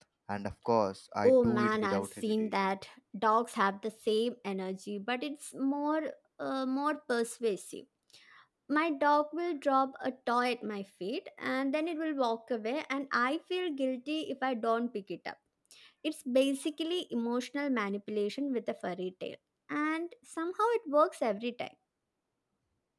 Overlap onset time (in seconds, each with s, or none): 1.2 s